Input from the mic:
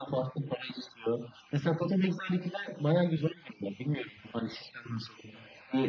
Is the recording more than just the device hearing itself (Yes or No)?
No